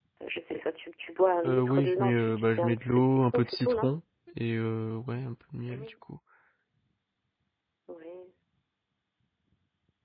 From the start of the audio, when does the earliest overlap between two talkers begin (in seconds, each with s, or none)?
1.4 s